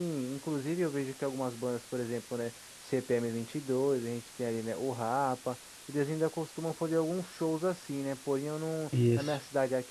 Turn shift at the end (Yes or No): No